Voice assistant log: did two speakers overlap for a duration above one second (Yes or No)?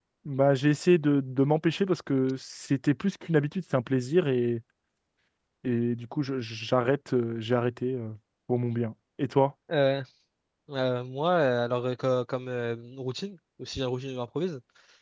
No